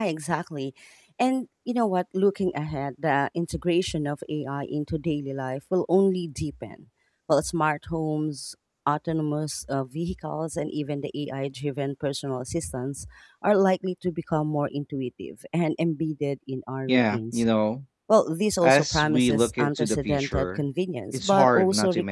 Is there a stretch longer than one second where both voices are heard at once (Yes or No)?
Yes